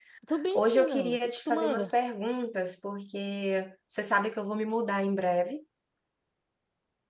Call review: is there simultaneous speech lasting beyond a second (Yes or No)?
Yes